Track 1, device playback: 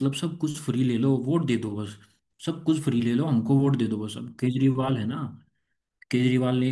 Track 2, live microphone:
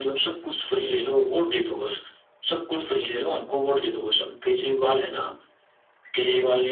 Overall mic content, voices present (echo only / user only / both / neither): echo only